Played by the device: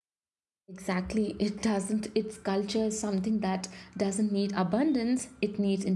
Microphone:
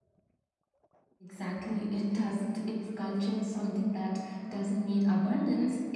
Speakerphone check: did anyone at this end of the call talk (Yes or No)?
No